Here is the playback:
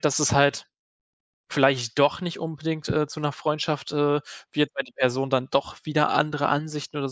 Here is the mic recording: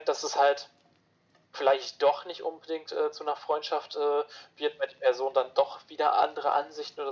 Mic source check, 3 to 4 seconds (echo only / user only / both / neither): echo only